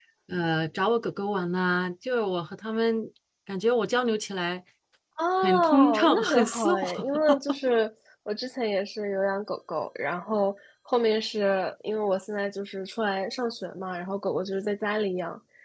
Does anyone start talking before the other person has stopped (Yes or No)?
Yes